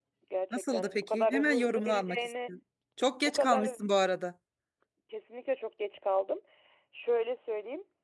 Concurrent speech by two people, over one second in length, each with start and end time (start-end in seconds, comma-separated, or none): 0.5-2.5